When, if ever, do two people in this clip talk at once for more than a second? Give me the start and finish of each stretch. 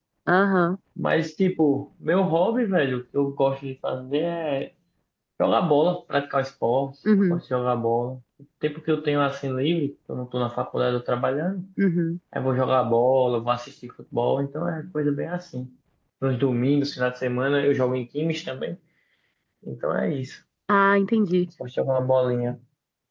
none

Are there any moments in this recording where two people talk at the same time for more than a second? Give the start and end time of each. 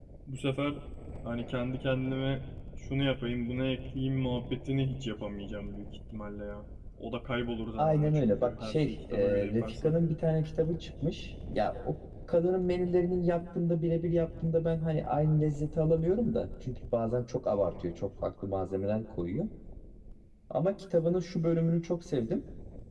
7.8-9.9

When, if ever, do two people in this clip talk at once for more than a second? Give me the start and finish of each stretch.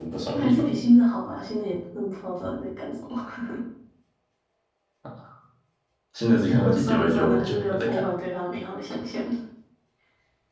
6.5-8.1

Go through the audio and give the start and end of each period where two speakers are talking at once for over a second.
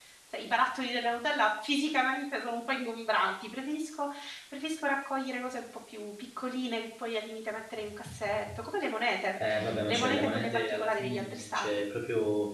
9.9-11.8

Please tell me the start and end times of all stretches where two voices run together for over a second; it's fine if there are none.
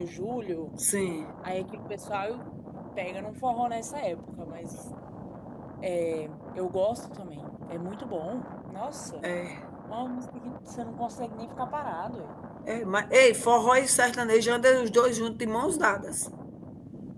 none

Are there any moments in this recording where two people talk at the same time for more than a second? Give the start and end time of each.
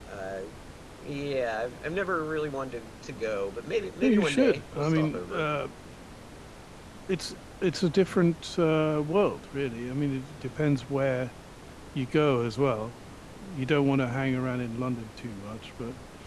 4.0-5.5

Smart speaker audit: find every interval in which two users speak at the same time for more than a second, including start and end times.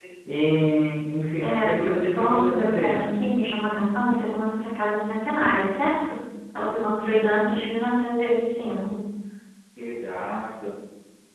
1.4-3.1

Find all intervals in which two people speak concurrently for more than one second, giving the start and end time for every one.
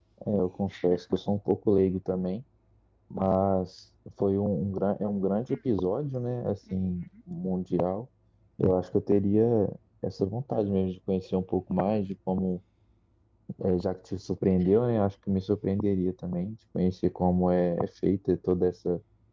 none

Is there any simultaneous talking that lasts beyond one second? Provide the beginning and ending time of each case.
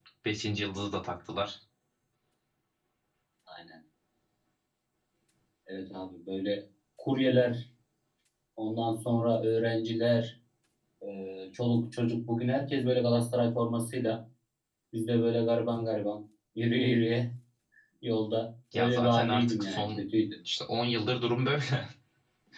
18.7-20.0

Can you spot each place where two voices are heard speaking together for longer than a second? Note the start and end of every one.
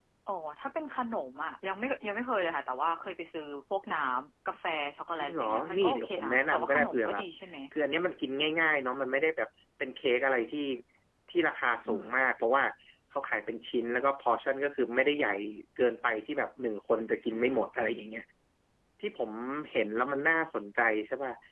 5.2-7.2

